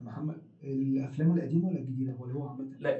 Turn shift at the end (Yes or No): Yes